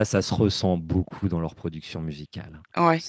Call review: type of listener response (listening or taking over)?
listening